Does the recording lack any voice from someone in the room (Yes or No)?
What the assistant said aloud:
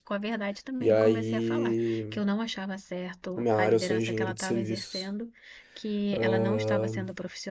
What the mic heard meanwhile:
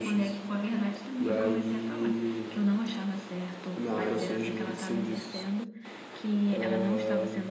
Yes